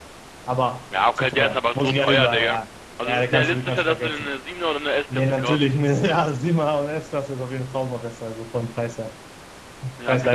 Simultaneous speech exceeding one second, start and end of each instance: 1.1-2.6, 3.0-4.3

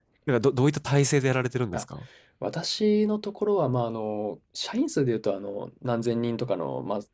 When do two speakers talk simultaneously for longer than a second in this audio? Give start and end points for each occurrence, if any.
none

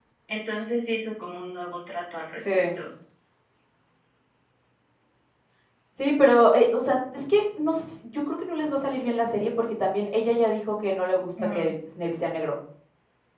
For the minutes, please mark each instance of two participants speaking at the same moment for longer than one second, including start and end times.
none

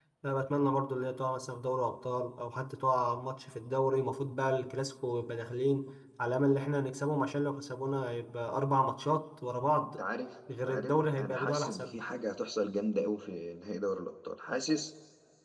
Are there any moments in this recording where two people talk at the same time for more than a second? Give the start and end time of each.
10.7-12.0

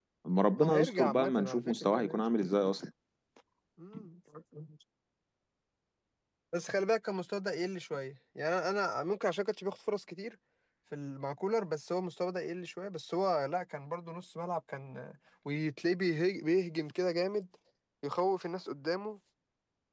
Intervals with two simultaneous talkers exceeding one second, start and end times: 0.6-2.2

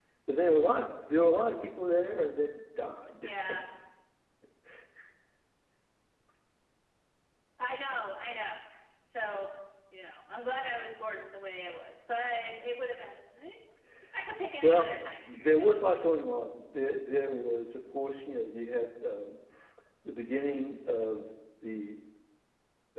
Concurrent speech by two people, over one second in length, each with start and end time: 14.6-16.2

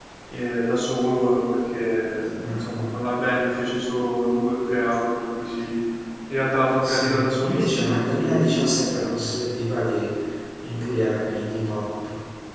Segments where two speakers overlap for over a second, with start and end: 6.8-9.0

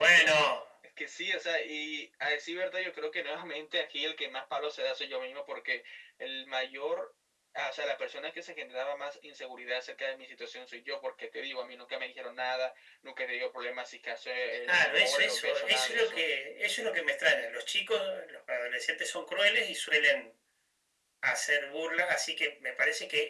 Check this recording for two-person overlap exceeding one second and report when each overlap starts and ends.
14.6-16.3

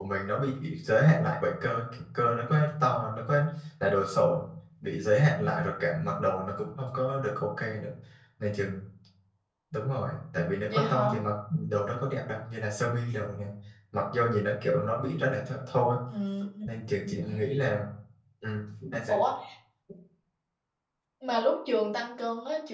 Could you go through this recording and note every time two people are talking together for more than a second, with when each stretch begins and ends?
none

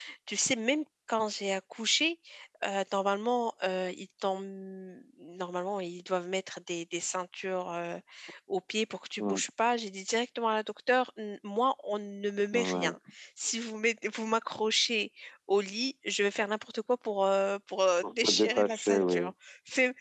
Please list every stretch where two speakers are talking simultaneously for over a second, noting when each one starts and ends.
18.0-19.3

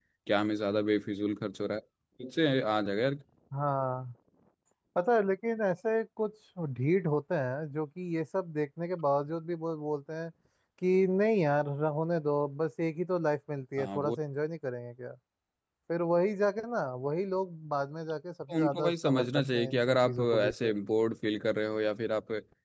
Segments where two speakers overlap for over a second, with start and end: 18.5-20.7

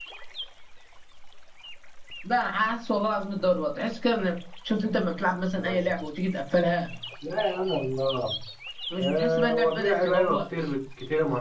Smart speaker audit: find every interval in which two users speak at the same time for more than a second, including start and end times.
9.0-10.4

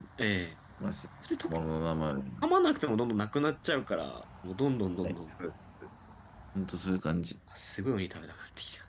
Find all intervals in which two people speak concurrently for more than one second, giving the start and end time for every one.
none

